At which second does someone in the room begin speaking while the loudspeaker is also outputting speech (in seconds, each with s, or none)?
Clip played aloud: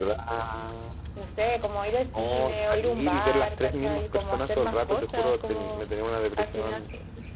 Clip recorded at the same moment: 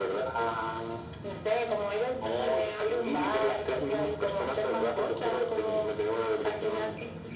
none